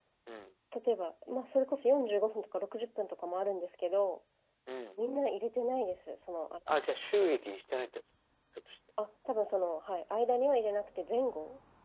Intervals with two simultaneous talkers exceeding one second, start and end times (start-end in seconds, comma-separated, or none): none